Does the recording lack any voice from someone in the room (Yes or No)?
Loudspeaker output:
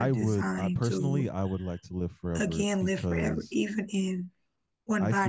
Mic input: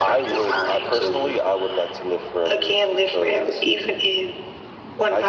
Yes